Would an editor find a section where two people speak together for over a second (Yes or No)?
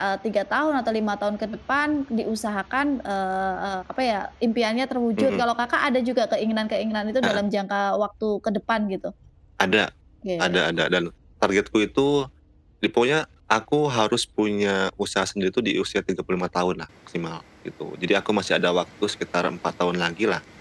No